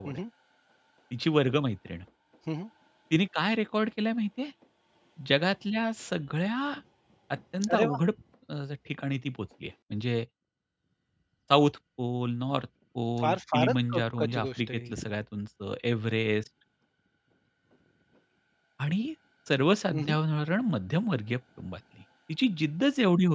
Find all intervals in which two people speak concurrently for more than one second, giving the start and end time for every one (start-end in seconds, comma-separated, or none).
13.2-14.9